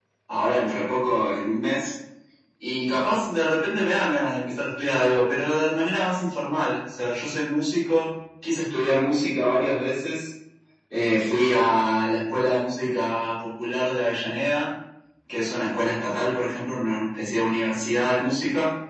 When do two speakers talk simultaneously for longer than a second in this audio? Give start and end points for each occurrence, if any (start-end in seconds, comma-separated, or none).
none